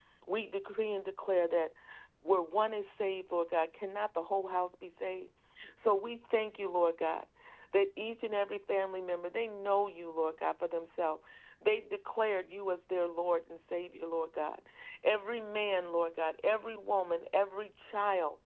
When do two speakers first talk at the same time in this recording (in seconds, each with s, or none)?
none